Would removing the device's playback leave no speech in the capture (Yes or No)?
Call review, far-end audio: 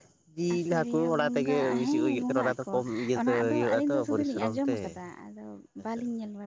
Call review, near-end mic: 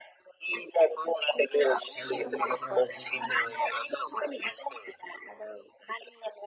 No